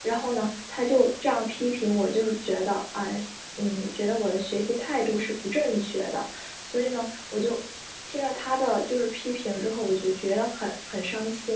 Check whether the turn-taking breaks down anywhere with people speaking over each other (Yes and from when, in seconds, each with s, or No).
No